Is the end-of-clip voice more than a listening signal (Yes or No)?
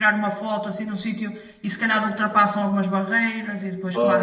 Yes